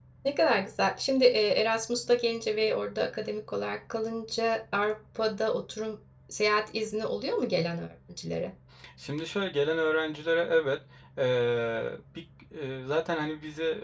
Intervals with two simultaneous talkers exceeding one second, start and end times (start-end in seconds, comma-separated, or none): none